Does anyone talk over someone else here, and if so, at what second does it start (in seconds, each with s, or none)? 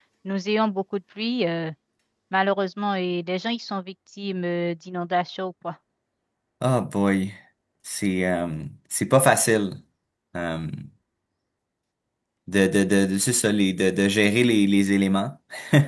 none